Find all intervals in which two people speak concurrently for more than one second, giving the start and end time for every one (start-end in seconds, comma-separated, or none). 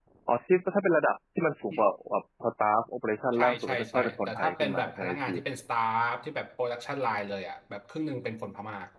3.3-5.3